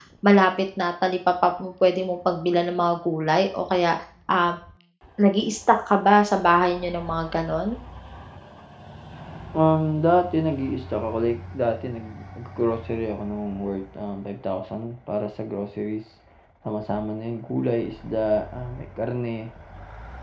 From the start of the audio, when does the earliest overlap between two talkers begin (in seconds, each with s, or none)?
none